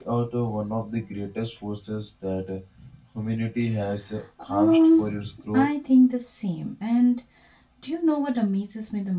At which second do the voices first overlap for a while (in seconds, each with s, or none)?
4.4 s